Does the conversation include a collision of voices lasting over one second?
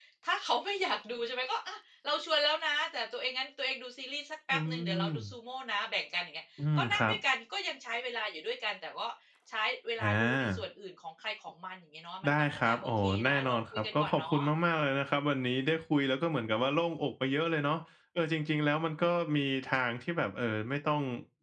Yes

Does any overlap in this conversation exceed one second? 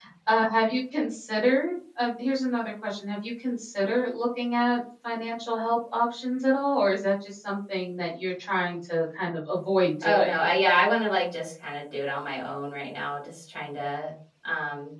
No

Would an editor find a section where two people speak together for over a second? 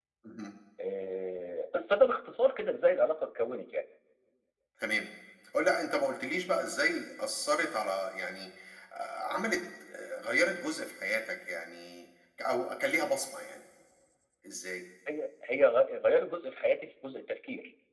No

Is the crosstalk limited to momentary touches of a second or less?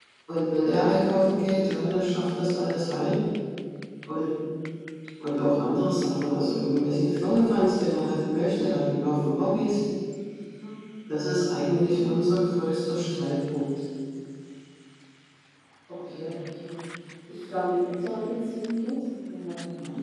Yes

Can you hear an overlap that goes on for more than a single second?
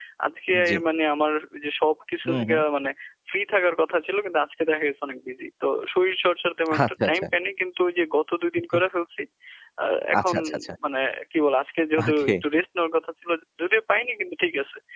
No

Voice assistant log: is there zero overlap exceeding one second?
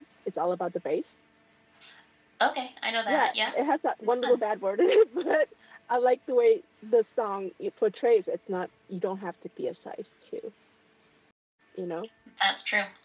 Yes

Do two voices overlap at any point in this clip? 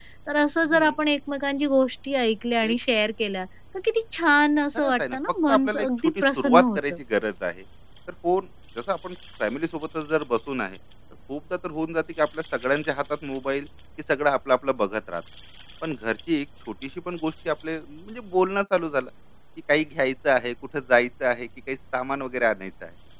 Yes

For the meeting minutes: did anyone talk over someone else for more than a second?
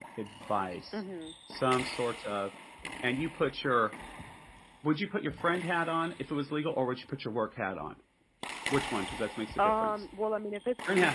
No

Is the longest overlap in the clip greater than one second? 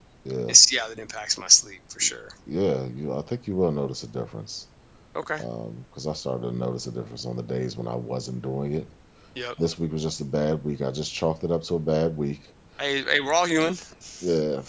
No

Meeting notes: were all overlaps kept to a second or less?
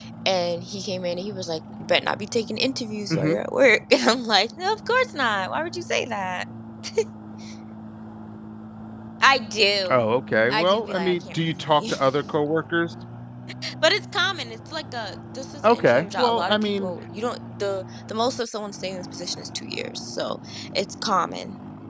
No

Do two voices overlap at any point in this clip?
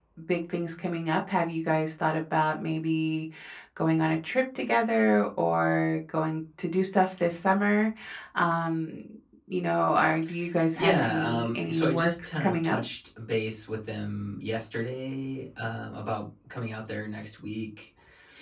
Yes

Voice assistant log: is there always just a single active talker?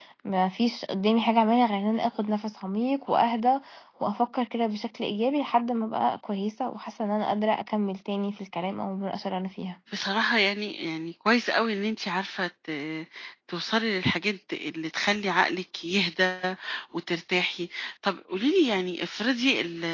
Yes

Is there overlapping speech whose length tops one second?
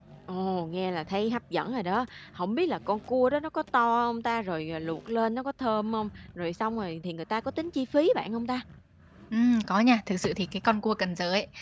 No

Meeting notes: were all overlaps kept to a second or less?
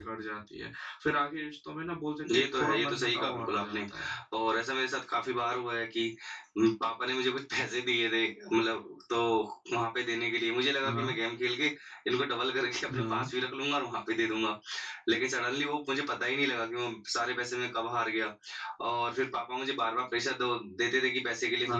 No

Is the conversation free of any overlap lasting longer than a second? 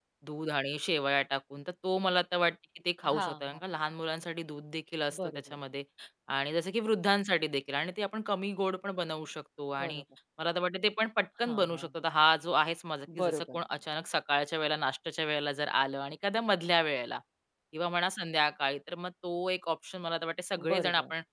Yes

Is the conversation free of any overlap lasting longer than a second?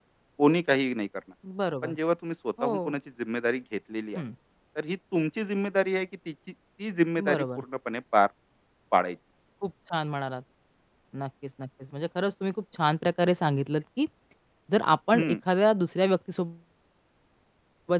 Yes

